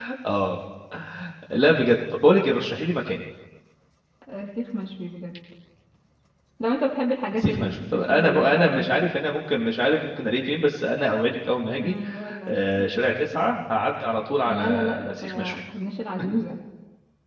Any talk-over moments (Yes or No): Yes